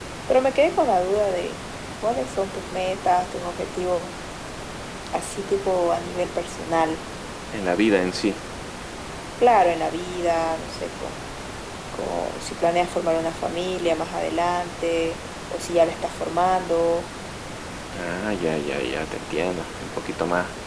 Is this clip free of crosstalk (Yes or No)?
Yes